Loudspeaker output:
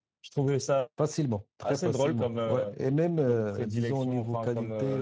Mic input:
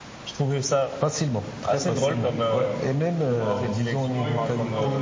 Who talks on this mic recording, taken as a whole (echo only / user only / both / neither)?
both